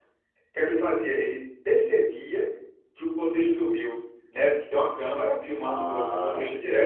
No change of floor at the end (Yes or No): Yes